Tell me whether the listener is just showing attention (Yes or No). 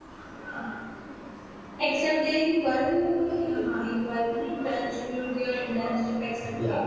No